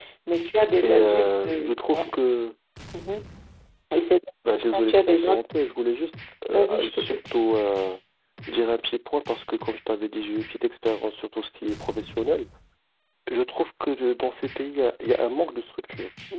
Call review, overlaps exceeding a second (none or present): present